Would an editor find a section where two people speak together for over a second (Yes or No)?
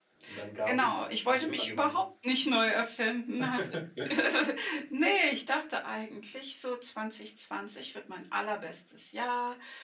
Yes